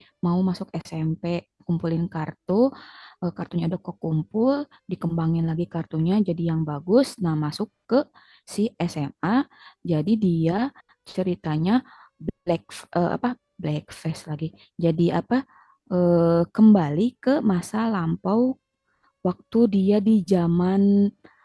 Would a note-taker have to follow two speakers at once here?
No

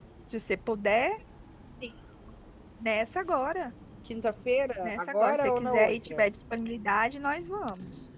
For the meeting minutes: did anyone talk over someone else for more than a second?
Yes, from 4.8 s

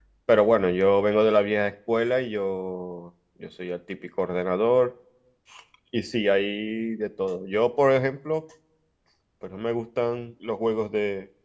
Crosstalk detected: No

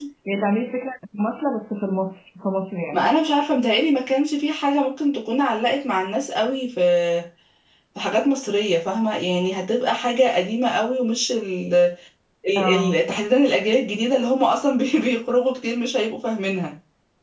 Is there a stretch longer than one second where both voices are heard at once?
No

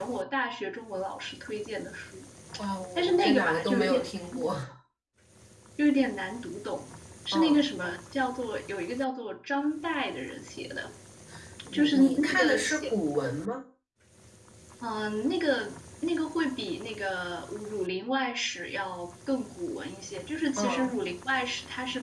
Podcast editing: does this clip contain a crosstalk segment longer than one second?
Yes, from 3.0 s

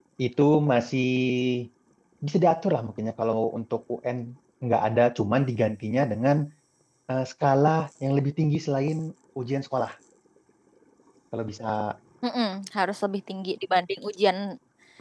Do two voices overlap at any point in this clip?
No

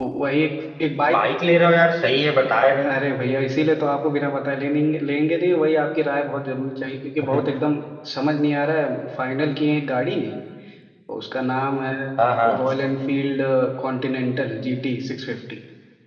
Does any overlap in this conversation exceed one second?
No

